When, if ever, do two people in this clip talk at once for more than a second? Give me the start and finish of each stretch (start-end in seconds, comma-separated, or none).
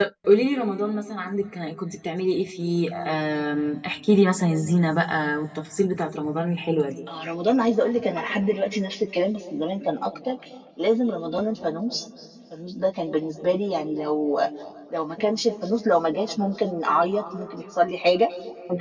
none